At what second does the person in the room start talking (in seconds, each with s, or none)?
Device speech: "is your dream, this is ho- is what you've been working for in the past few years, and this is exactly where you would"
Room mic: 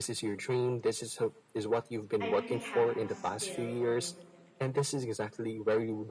2.2 s